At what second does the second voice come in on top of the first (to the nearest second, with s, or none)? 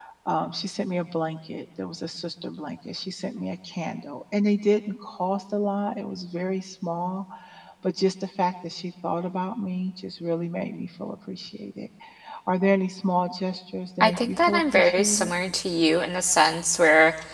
14 s